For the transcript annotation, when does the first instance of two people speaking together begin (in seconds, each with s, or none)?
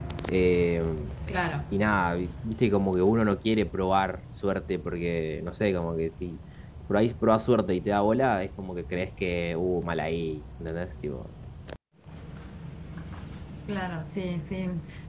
none